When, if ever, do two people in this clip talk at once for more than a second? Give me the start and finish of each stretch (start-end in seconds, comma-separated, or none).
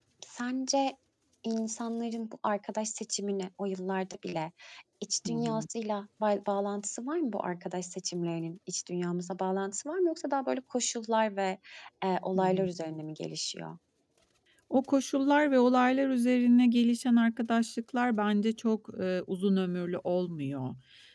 none